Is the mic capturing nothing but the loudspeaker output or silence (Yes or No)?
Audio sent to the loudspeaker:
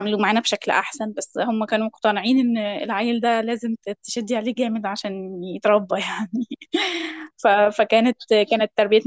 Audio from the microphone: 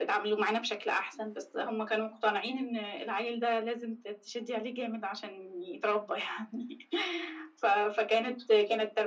Yes